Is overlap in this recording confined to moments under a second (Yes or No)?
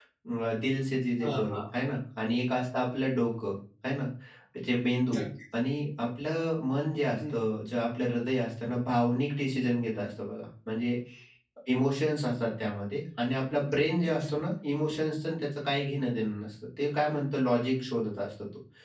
Yes